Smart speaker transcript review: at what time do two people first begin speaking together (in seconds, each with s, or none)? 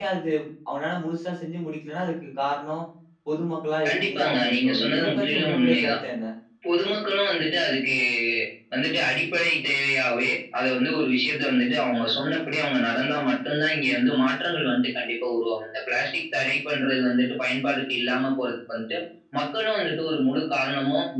3.9 s